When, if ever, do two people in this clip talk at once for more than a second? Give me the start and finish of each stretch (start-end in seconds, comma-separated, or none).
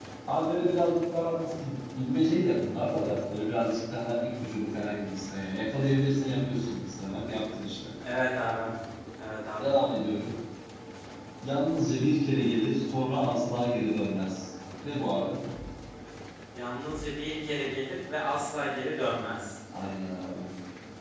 none